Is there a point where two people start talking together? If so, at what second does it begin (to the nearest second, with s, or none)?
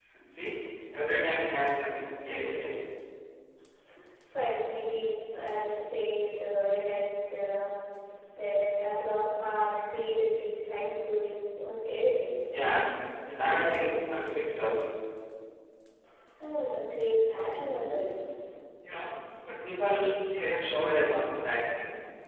none